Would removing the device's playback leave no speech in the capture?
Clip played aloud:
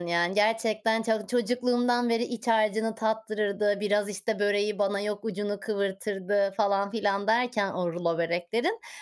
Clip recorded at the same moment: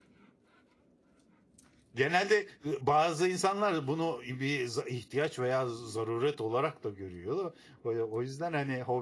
No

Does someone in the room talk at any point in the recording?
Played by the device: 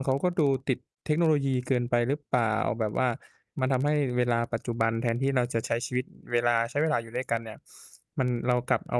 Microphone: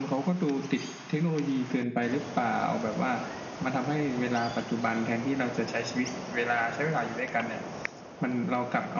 No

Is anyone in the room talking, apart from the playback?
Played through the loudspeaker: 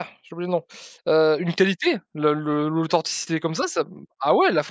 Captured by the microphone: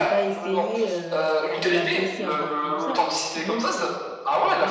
Yes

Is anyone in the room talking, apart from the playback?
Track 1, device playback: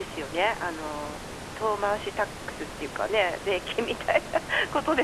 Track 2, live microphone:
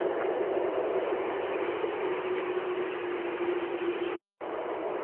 No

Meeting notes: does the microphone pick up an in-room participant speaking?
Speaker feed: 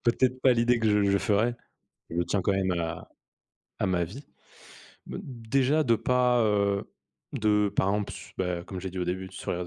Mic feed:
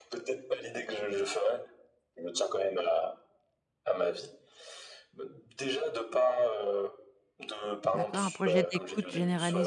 Yes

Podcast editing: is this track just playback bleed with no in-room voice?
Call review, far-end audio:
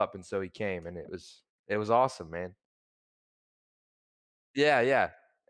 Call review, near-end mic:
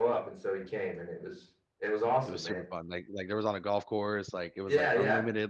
No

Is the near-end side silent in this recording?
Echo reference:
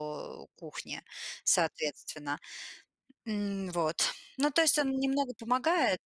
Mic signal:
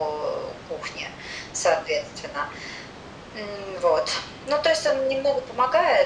Yes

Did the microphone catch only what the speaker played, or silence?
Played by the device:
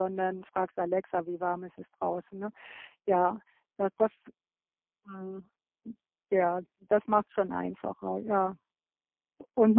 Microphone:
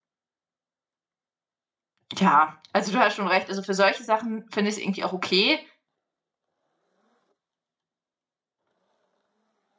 No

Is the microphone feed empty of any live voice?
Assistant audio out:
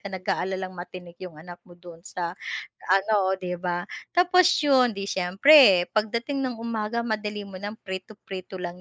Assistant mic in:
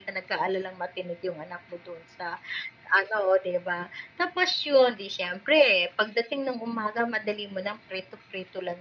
Yes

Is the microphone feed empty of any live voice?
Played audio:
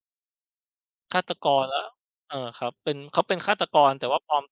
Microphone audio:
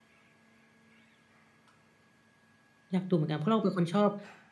No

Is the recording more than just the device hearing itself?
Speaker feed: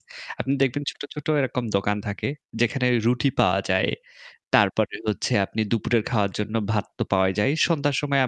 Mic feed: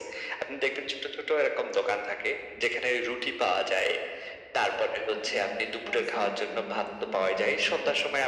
Yes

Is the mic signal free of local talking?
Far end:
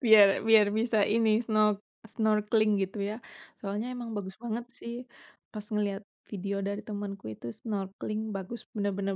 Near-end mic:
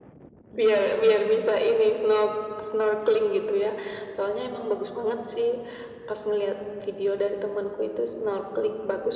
No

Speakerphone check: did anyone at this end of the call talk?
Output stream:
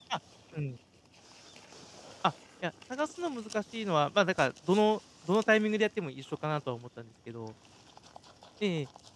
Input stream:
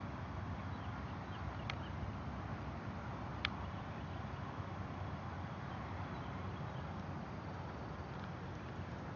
No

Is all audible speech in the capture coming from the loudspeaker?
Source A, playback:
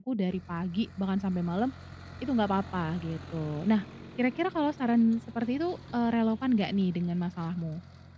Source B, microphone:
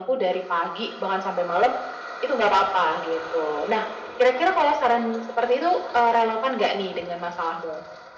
Yes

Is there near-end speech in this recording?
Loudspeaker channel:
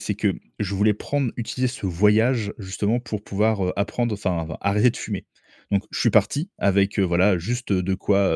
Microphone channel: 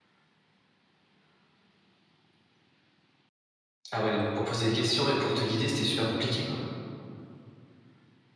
Yes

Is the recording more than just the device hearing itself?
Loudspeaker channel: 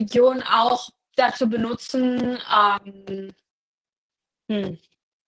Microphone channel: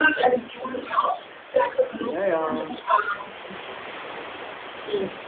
Yes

